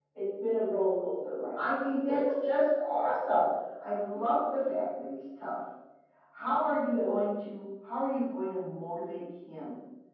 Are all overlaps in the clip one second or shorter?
Yes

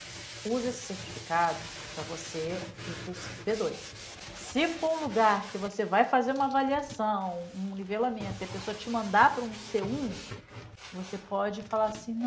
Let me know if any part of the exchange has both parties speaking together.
No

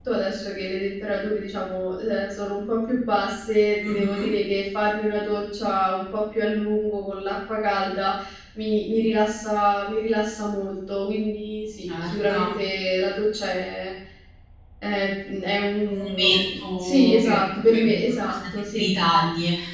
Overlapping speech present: Yes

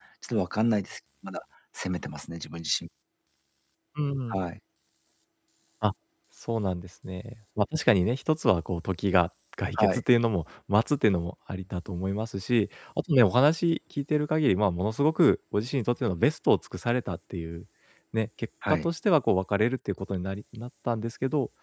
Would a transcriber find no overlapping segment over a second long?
Yes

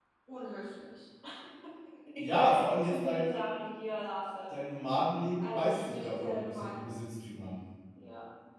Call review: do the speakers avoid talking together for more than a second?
No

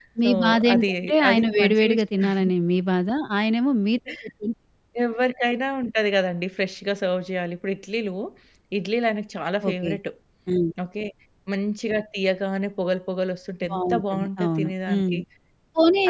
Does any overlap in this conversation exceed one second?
Yes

